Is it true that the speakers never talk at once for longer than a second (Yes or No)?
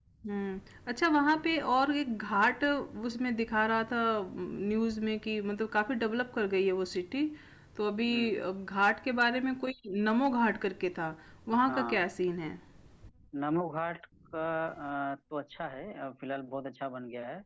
Yes